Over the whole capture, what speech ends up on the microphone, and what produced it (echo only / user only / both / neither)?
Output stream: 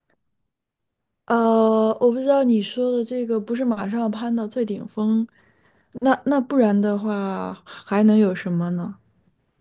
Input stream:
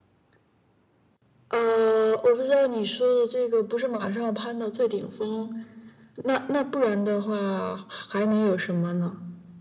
echo only